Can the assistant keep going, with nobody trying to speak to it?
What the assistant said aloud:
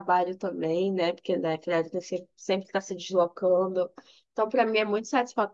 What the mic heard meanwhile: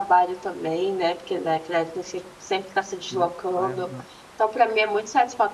No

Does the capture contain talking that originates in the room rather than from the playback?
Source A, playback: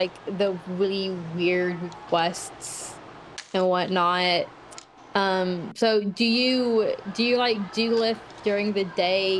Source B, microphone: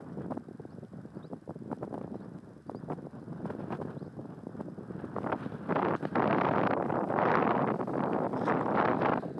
No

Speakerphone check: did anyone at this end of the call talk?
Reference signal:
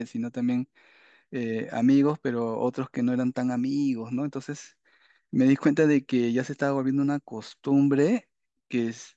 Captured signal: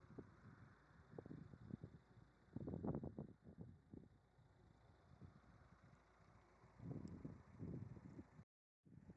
No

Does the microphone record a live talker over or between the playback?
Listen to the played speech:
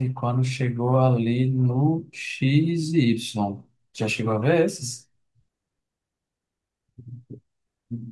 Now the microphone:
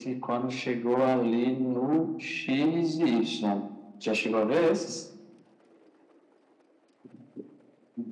No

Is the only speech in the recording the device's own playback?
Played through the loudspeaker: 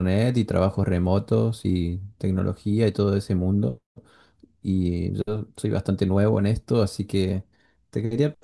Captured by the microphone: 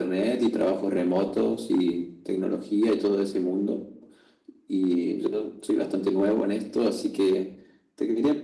Yes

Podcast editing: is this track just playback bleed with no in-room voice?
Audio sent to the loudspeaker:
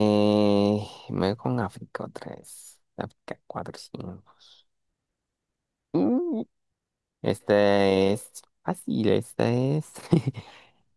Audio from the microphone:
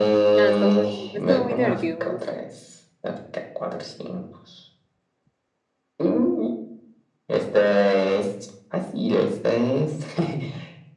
No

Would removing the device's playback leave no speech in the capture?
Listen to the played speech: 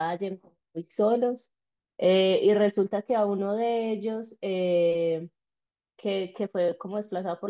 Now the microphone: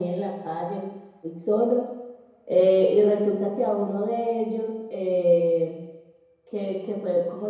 Yes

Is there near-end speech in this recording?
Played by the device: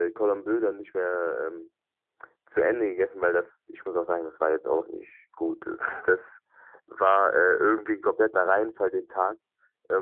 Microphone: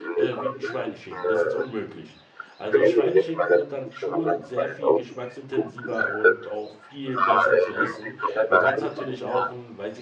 Yes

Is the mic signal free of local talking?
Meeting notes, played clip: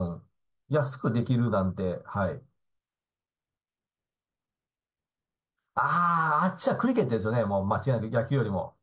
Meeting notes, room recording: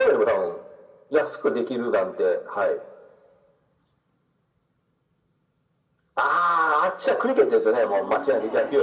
No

